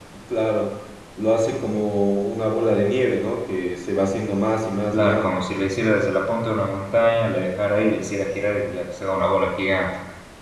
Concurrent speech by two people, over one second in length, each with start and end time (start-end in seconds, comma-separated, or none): none